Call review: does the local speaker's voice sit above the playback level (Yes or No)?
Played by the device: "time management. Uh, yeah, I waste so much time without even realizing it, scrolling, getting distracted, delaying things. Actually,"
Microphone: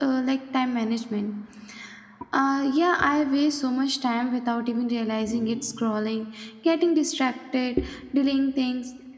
No